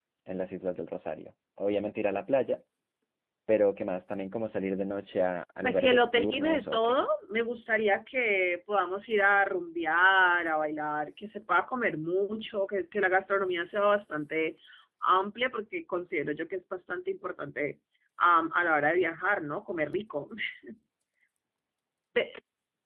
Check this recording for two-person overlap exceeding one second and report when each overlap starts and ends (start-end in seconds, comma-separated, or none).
5.6-7.0